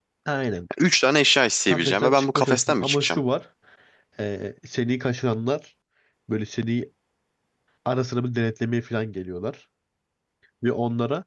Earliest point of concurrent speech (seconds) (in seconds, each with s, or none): 1.7 s